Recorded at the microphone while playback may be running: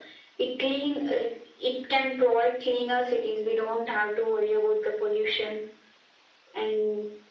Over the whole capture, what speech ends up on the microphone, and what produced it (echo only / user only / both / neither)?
echo only